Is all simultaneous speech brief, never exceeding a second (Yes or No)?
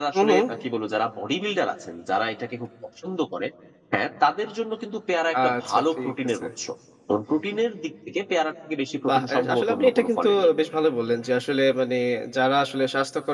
No